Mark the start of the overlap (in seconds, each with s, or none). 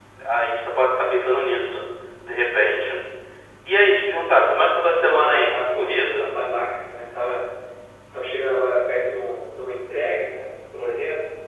5.0 s